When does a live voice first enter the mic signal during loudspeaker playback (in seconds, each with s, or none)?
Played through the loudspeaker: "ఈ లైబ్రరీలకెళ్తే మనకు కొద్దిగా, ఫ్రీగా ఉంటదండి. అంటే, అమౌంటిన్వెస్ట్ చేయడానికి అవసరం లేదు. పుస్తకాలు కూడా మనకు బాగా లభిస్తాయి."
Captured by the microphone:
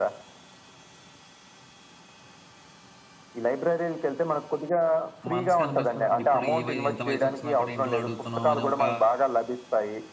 5.3 s